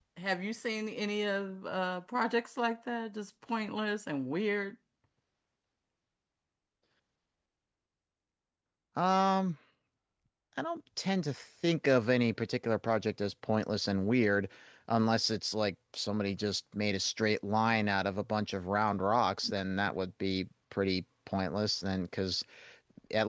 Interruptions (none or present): none